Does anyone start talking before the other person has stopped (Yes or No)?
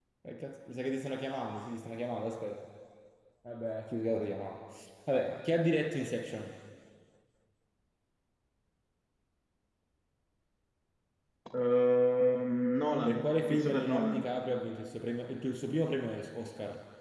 Yes